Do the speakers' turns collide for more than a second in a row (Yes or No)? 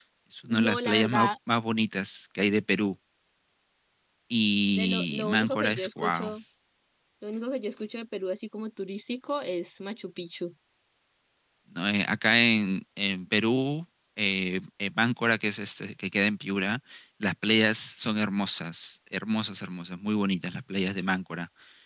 Yes